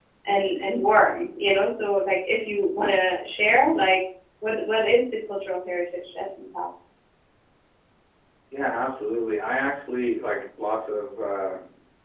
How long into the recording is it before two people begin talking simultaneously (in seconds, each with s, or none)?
none